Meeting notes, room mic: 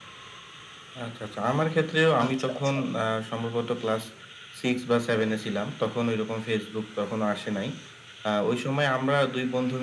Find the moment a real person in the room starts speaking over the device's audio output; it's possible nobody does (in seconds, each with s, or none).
2.2 s